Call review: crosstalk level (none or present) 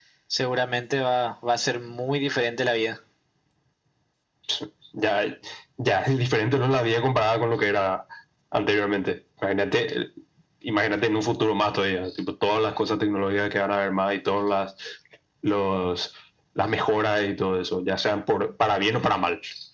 none